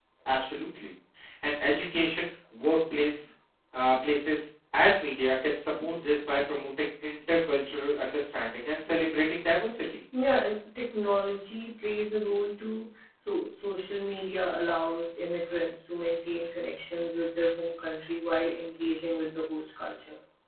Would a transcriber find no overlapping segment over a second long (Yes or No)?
Yes